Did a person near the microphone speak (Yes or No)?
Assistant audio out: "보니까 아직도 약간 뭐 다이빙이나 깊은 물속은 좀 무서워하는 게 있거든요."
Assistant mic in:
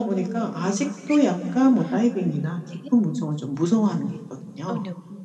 Yes